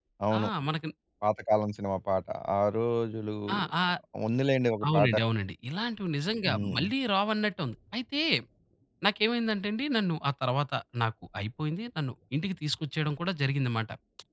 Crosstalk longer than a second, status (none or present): none